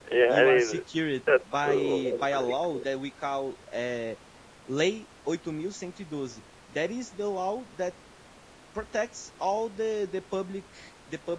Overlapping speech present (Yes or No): Yes